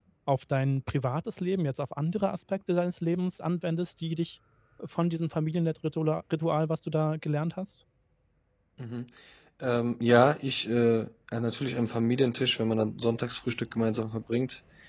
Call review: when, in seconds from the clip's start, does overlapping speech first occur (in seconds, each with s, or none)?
none